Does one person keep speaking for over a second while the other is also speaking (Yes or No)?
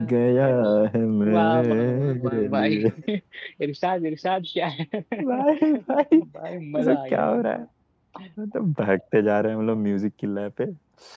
Yes